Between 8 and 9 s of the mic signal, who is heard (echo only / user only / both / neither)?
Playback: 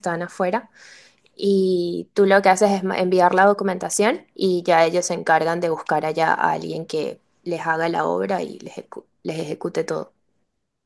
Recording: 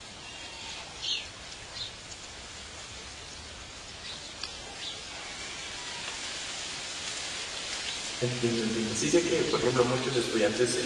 user only